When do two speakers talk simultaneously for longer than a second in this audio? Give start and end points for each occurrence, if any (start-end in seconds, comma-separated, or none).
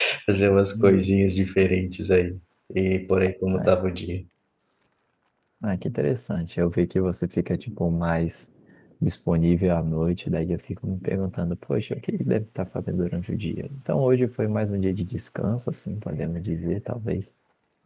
none